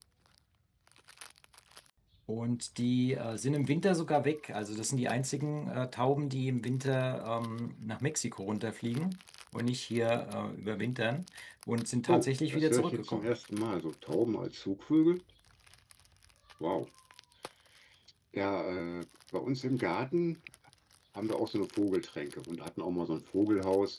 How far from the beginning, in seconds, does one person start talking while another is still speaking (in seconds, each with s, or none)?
12.1 s